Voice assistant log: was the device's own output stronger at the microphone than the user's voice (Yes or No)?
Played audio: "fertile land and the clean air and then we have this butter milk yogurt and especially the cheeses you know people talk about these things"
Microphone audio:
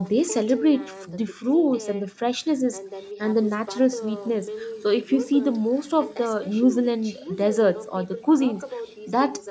No